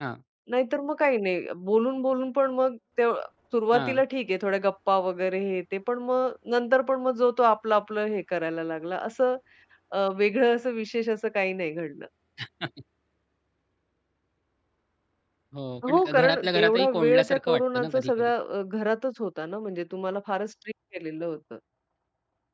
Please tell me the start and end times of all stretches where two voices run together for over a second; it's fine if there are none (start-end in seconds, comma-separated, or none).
15.9-18.3